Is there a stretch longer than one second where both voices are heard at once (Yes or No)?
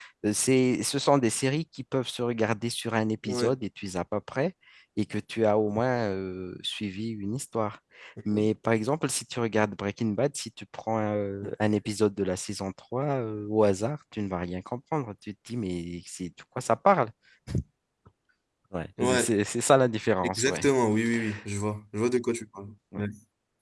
No